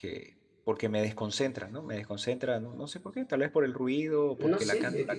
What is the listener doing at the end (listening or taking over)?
taking over